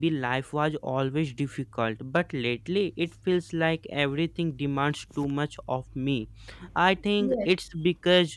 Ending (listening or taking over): listening